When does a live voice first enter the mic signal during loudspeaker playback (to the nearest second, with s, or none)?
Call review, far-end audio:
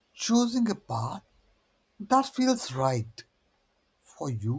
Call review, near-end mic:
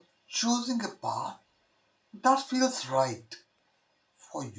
none